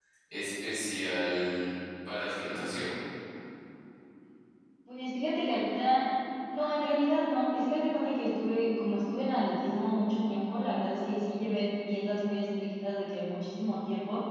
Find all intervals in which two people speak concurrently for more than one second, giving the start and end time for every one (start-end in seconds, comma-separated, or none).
none